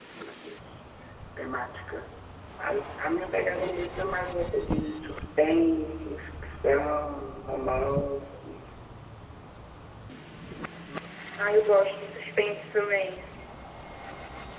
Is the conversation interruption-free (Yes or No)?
Yes